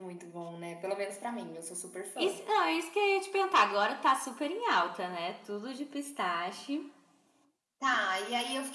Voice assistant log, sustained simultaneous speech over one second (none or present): none